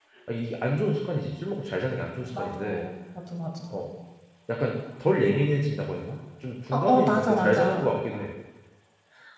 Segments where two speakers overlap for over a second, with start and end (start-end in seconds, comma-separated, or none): 6.7-7.9